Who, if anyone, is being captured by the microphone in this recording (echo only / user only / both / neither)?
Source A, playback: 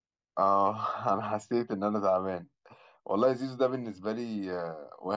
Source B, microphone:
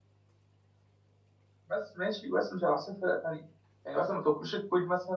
user only